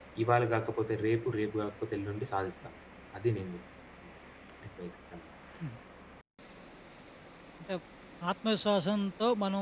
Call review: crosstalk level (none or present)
none